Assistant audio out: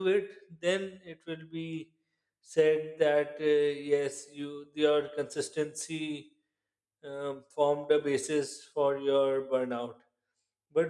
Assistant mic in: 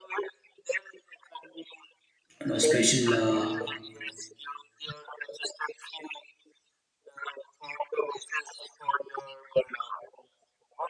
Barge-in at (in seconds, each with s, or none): 2.4 s